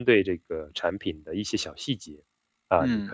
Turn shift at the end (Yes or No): No